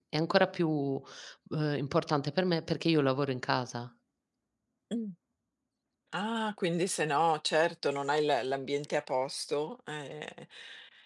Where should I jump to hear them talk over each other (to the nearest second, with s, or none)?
none